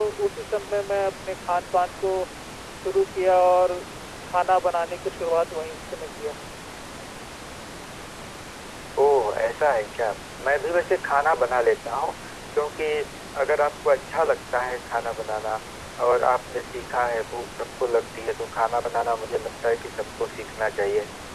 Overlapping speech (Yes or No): No